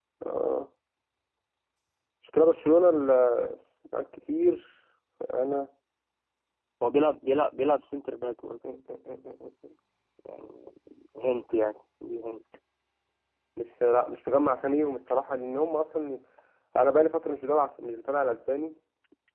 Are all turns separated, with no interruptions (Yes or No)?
Yes